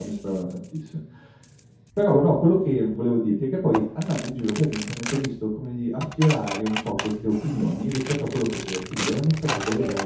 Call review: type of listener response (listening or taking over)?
listening